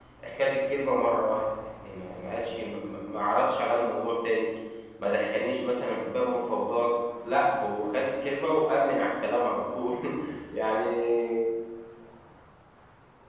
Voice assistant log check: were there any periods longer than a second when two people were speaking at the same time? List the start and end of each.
none

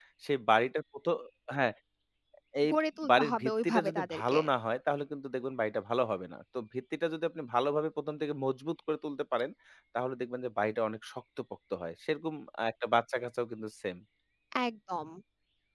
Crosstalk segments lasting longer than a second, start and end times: 3.1-4.4

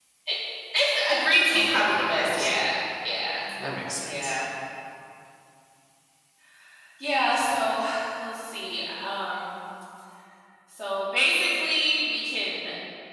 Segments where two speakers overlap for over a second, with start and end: 1.5-2.7

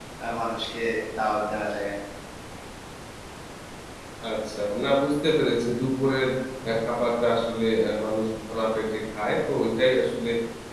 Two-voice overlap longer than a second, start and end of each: none

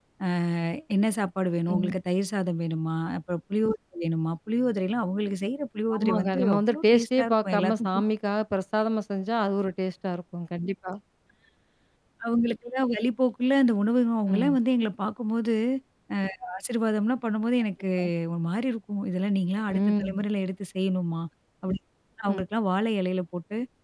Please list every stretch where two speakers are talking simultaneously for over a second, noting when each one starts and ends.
6.0-7.9

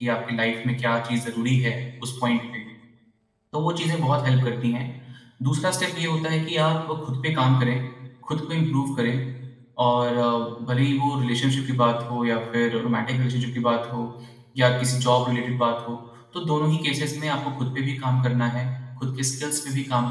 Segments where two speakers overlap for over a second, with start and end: none

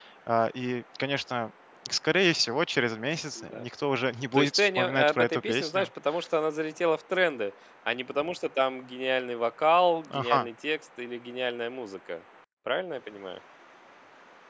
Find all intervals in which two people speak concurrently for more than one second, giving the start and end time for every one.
4.3-5.9

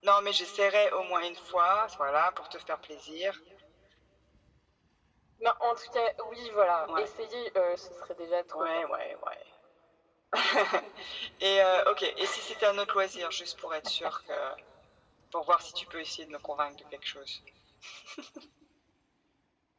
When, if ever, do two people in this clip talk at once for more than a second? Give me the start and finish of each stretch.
none

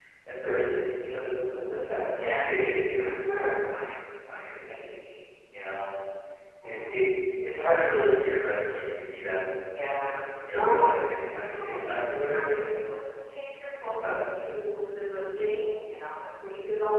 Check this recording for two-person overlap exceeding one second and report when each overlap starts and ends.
11.3-13.0

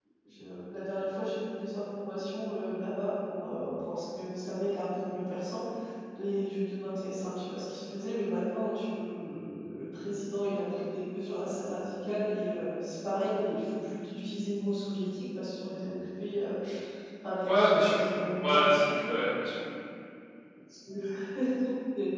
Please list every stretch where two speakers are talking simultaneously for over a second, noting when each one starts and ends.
none

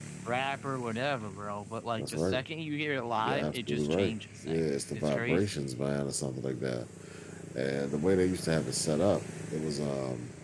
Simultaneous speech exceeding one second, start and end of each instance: 3.2-5.5

